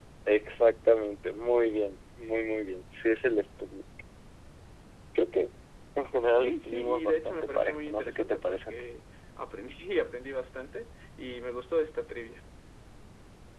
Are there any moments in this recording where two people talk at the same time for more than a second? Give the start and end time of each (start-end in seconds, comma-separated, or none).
6.3-8.7